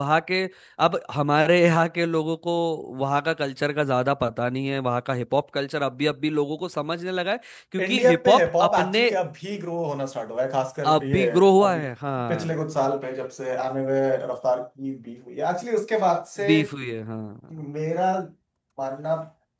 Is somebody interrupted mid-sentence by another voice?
Yes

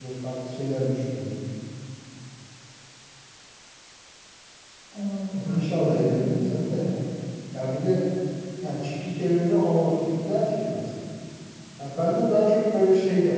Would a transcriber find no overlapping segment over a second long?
No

